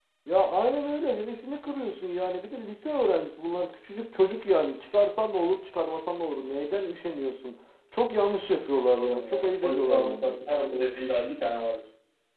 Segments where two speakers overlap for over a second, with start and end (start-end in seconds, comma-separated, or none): 8.9-10.3